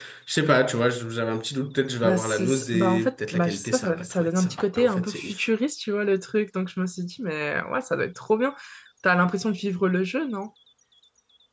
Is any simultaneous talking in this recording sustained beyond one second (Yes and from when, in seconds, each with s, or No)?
Yes, from 2.0 s